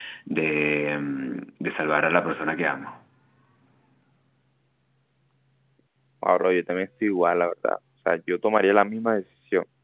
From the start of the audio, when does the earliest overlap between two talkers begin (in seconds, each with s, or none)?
none